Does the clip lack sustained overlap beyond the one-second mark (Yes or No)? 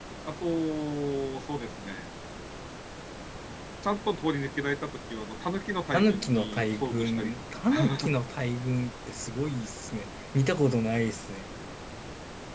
No